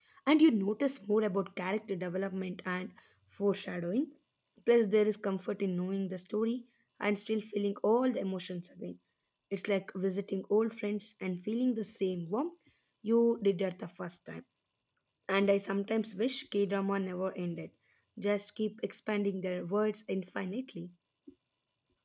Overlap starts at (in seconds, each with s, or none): none